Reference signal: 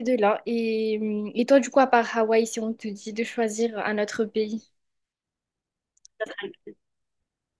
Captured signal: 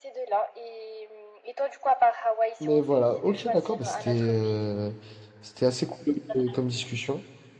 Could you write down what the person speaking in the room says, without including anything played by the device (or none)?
mais voilà, ok, d'accord, bah, c'était euh, c'était assez cool euh, comme discussion.